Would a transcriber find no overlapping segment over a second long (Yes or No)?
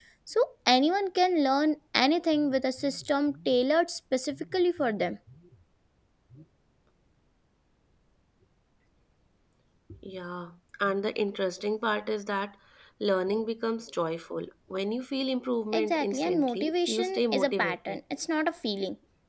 No